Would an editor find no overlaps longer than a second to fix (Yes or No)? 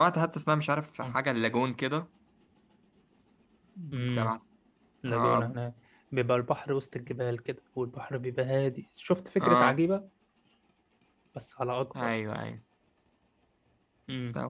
Yes